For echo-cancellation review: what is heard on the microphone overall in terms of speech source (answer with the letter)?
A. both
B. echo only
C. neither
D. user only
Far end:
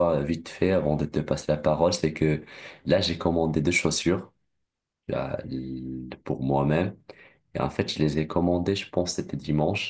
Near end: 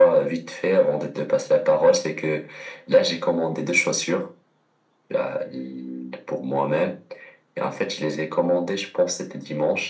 B